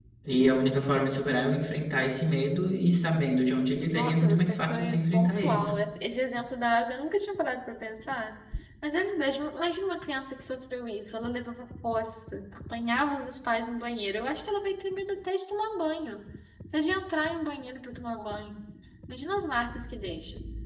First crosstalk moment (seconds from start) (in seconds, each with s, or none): 3.9 s